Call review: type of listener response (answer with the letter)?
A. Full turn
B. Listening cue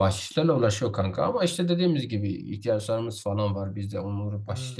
B